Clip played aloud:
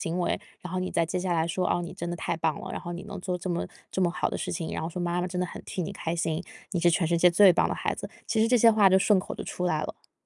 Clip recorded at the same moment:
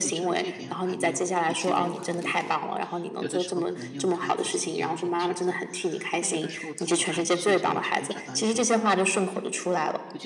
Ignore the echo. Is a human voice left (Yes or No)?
Yes